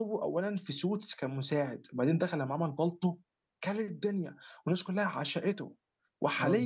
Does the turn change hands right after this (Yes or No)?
No